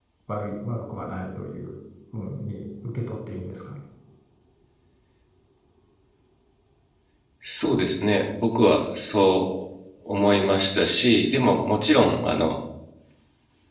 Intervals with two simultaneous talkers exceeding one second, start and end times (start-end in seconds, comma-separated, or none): none